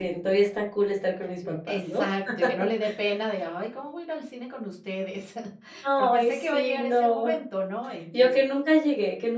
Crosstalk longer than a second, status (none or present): present